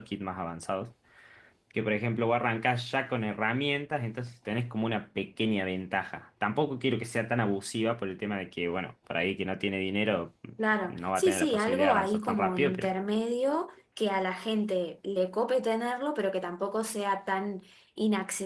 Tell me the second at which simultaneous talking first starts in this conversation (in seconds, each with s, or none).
10.9 s